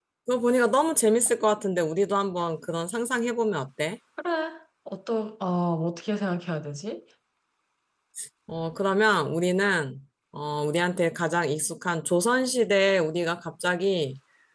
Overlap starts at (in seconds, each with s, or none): none